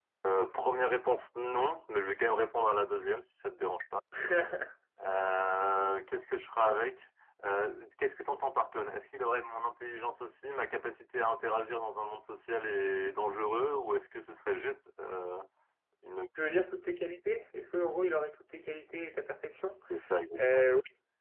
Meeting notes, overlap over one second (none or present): none